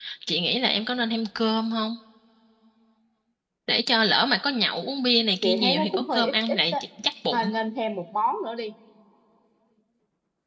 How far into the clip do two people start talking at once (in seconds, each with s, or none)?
5.4 s